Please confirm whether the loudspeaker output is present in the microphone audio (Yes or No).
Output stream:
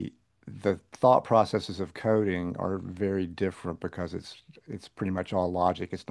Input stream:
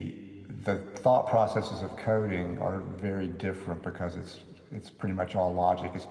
Yes